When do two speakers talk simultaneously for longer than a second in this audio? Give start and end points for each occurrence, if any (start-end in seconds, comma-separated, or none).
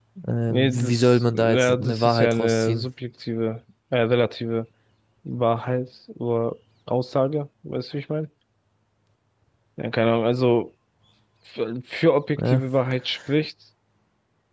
0.5-2.9